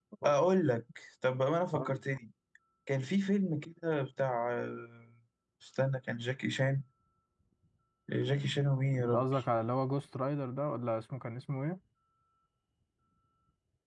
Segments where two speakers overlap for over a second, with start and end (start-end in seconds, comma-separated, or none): none